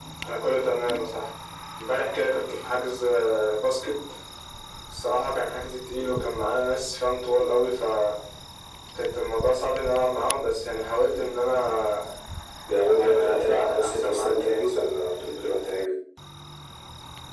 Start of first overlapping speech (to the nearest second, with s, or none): 13 s